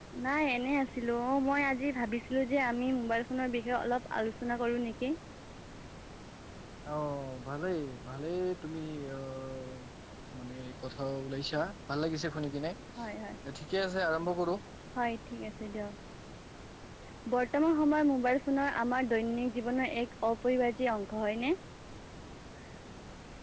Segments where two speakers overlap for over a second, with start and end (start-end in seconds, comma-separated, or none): none